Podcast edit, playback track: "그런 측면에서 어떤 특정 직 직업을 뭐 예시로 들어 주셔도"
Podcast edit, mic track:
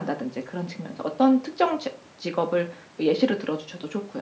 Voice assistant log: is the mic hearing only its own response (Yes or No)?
Yes